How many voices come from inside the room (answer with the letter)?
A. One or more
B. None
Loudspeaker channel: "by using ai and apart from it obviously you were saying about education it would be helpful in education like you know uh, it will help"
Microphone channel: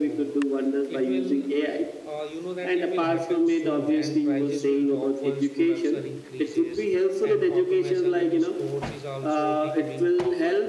A